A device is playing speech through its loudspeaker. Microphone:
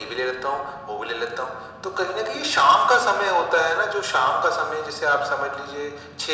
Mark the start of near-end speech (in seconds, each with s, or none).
none